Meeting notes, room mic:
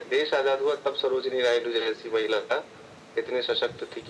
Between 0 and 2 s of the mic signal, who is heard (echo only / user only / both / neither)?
echo only